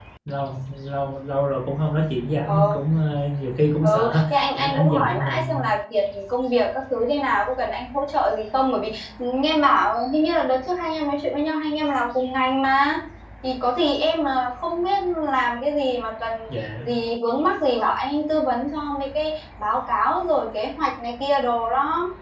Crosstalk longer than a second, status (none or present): present